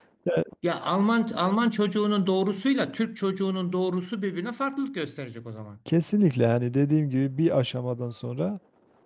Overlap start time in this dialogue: none

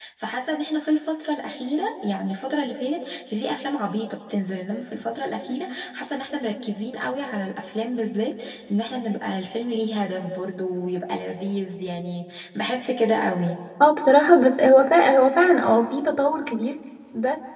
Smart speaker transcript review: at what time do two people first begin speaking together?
none

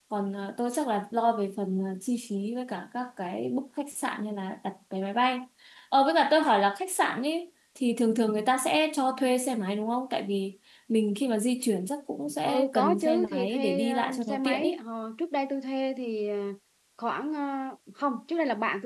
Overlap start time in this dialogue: 12.4 s

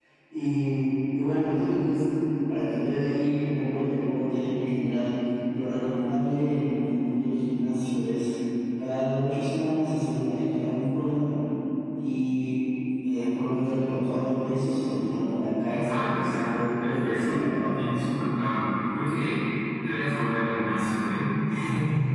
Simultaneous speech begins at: 15.7 s

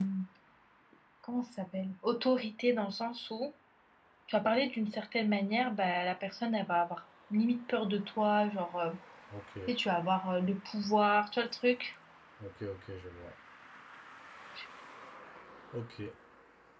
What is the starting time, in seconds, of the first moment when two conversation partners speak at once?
none

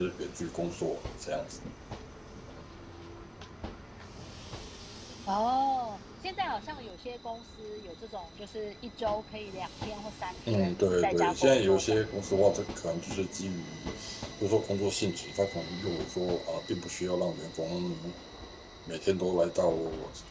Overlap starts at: 10.5 s

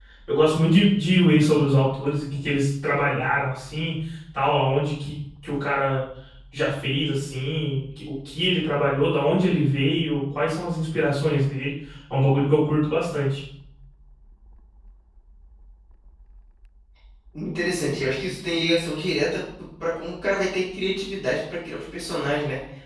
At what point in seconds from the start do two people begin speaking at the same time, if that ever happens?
none

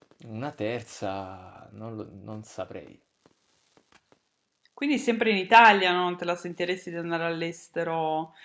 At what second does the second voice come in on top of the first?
none

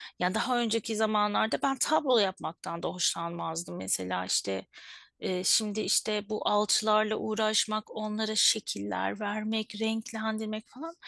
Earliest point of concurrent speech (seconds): none

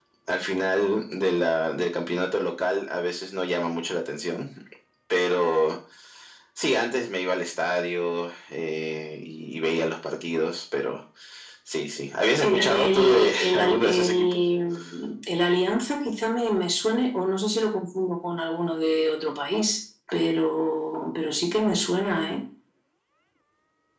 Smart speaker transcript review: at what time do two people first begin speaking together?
12.4 s

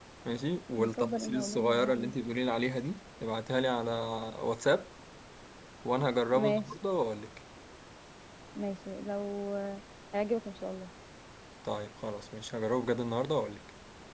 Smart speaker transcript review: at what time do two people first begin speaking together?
0.8 s

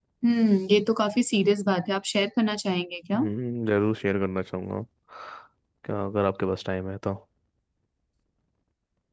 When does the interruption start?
none

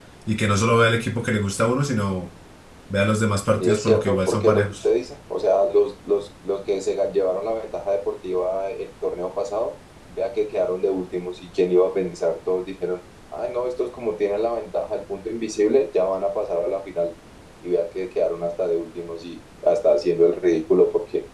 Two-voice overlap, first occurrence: 3.6 s

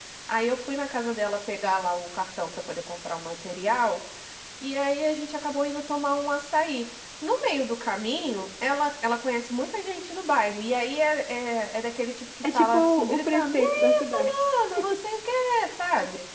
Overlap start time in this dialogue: 12.4 s

